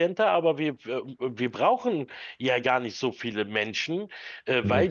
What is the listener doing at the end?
listening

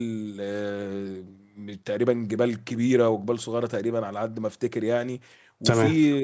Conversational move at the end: listening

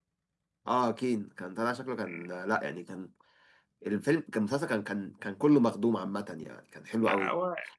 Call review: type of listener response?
taking over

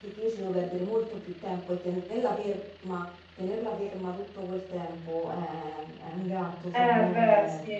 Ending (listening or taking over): taking over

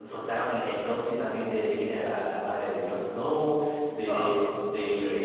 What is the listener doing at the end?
listening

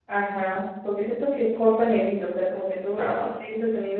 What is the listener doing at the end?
listening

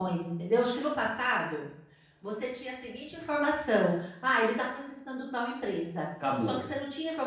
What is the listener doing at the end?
listening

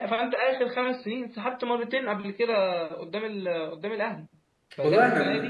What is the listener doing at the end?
taking over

